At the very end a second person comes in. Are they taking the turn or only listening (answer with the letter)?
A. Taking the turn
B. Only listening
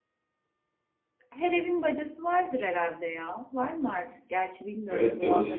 A